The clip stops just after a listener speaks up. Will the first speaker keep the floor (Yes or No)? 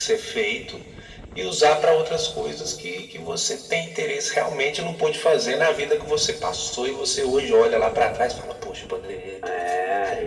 No